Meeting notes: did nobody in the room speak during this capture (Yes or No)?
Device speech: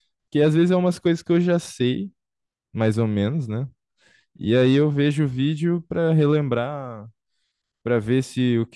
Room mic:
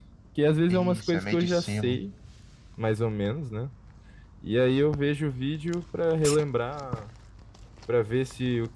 No